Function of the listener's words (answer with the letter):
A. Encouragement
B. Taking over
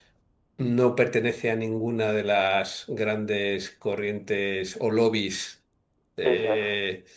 A